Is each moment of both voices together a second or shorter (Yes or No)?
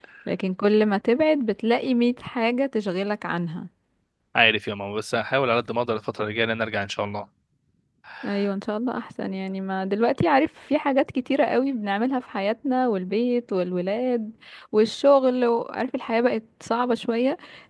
Yes